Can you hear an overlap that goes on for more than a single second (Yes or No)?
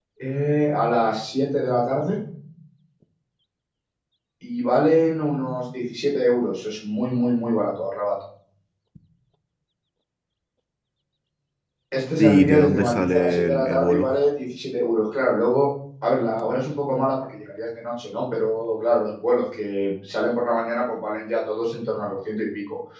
Yes